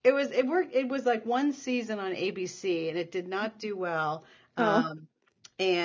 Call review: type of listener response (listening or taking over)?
listening